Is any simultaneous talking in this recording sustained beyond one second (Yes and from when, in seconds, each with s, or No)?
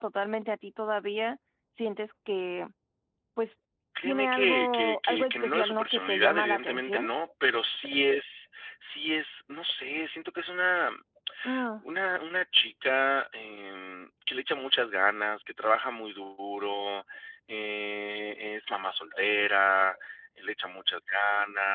Yes, from 4.0 s